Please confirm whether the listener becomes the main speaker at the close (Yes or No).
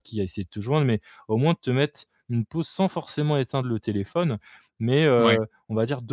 No